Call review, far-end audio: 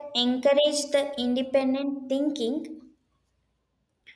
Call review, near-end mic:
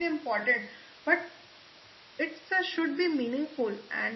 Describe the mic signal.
user only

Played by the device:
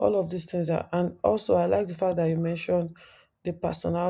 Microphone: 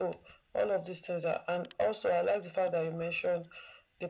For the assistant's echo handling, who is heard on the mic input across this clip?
echo only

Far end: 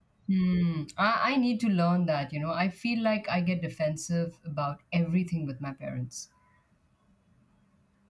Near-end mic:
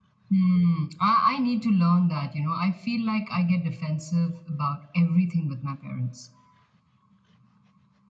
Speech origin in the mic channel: echo only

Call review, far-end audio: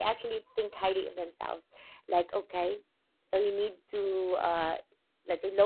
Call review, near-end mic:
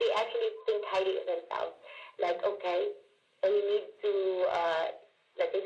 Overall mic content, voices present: echo only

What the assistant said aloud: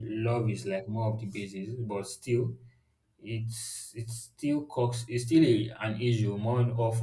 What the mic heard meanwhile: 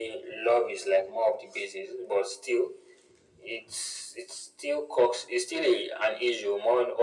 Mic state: echo only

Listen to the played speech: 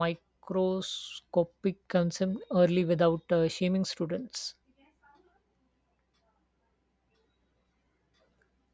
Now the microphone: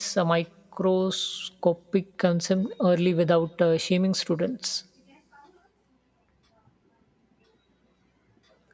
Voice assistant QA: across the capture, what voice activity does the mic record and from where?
echo only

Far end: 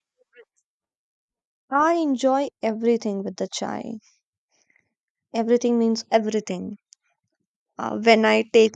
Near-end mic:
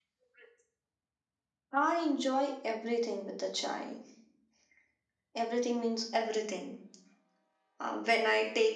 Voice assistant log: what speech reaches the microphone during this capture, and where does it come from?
echo only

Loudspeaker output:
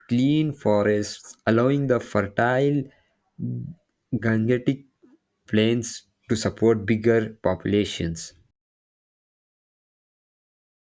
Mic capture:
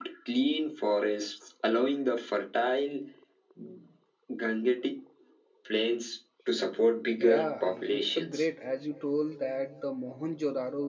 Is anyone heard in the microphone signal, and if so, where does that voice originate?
both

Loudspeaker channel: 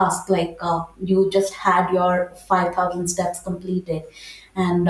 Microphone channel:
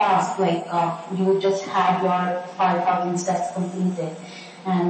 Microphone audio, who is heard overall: echo only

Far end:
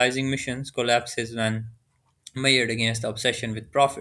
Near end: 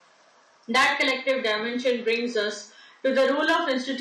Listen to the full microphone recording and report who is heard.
user only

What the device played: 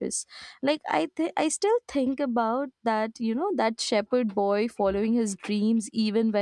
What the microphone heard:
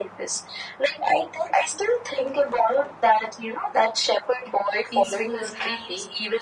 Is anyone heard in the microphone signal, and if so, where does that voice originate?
both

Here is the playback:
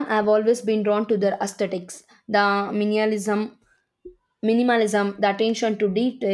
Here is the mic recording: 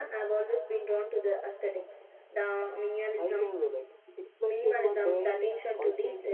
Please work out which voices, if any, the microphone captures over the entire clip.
both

